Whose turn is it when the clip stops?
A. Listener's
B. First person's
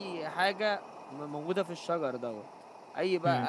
B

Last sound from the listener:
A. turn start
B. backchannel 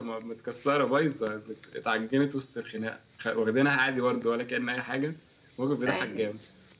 B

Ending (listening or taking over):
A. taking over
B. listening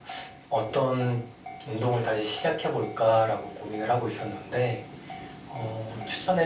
B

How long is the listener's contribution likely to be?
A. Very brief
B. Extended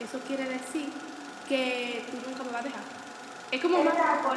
B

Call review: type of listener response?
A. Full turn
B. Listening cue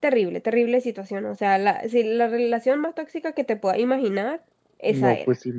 A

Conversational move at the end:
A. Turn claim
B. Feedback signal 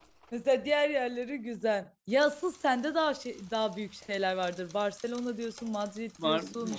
A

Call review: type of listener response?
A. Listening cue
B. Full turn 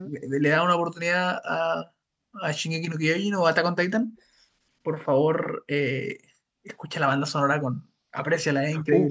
B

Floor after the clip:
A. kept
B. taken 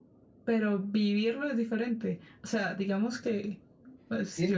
B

